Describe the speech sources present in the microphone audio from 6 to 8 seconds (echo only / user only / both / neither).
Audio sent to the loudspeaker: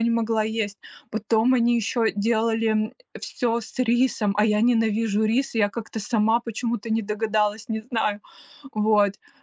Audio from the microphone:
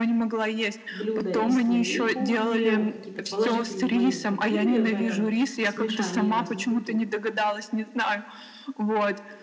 both